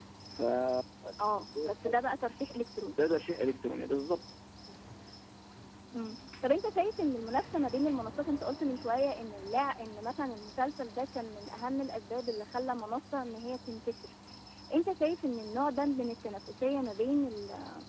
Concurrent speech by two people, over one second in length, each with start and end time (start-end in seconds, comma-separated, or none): none